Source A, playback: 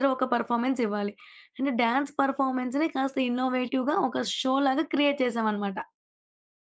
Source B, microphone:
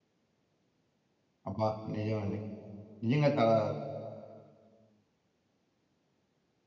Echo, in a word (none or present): none